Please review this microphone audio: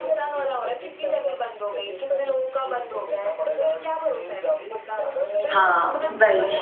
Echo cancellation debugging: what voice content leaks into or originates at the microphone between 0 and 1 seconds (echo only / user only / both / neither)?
echo only